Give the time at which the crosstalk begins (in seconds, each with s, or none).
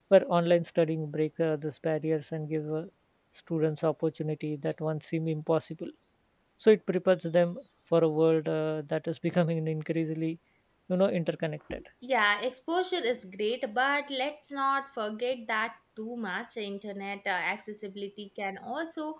none